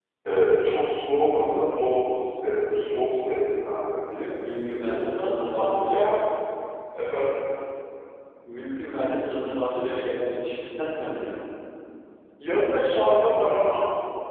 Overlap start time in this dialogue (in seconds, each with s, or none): 4.8 s